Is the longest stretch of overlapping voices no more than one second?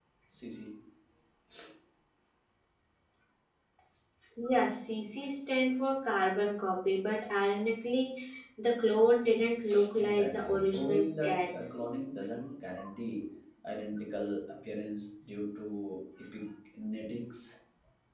No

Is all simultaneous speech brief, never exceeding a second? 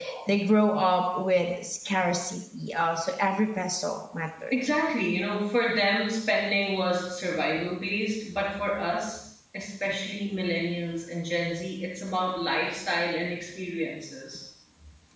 Yes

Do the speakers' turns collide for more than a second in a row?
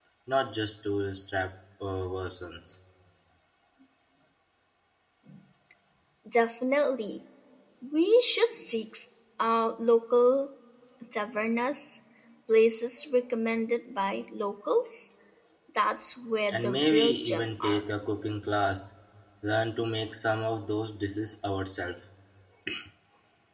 Yes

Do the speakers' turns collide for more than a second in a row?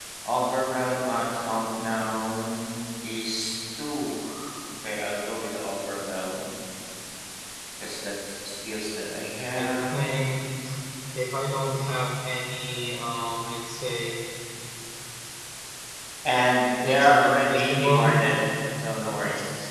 Yes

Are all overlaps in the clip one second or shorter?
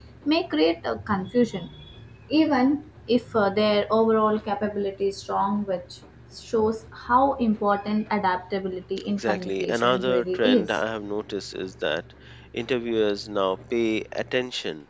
No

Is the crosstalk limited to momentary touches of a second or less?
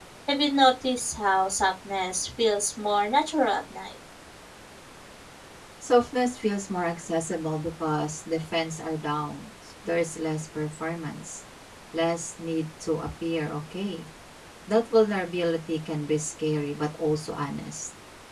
Yes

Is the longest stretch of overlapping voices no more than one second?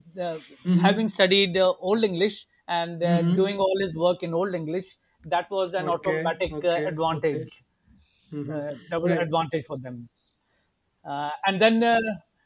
No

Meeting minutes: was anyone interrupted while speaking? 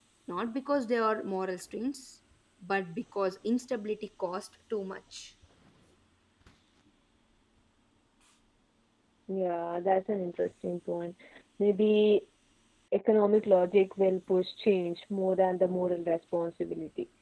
No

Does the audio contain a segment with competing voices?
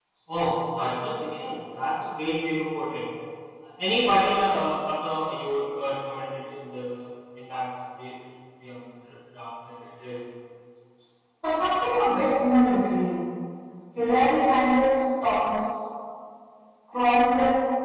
No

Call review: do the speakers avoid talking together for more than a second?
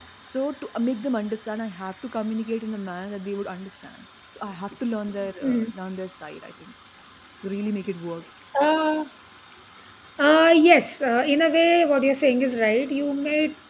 Yes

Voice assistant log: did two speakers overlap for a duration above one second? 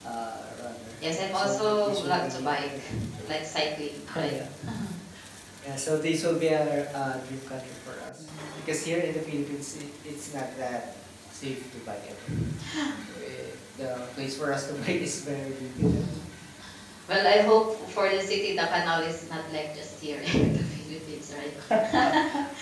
Yes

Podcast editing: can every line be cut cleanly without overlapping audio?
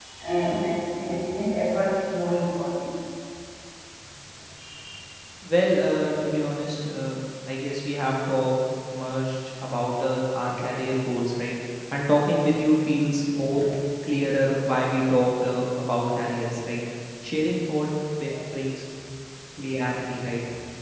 Yes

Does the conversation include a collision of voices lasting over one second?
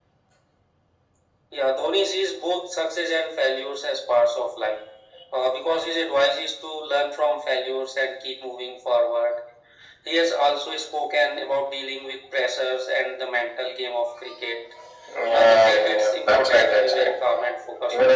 Yes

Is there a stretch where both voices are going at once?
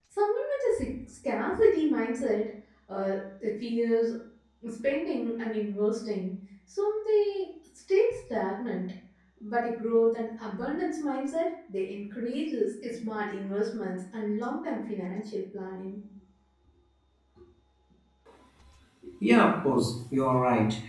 No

